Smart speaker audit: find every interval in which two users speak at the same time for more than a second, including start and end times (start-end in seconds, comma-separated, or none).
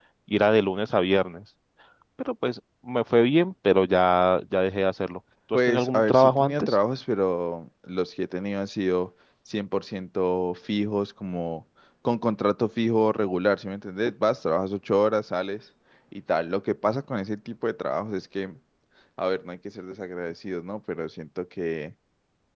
5.5-6.8